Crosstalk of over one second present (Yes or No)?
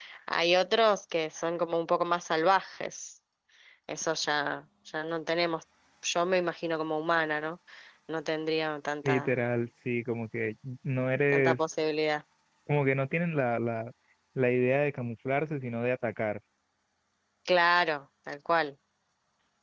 No